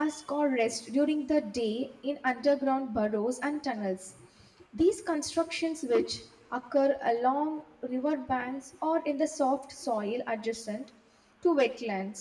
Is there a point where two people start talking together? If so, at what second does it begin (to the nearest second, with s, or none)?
none